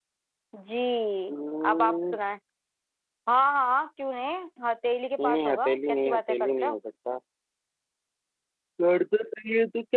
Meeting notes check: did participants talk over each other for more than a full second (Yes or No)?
Yes